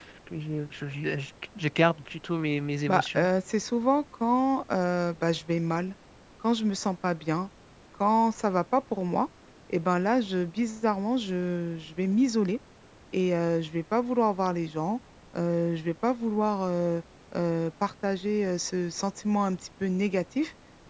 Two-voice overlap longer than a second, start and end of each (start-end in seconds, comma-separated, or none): none